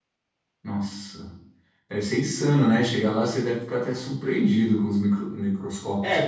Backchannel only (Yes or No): No